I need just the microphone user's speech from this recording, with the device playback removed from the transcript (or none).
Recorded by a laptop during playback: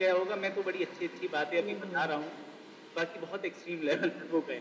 अलग हो